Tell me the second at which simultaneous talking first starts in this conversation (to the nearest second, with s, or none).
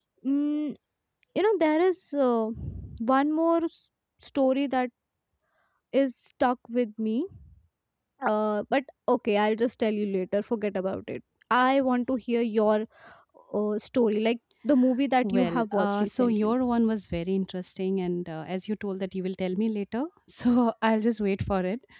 15 s